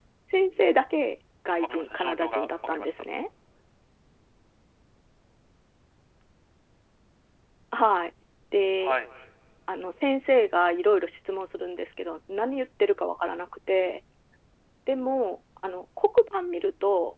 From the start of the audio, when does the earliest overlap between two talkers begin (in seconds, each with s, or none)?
1.6 s